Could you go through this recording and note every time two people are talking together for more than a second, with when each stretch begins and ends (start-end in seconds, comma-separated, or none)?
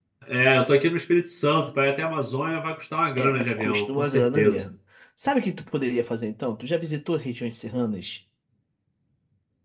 3.2-4.6